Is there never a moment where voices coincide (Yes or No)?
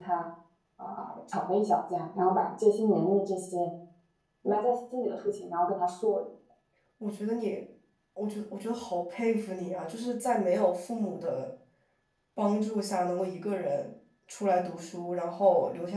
Yes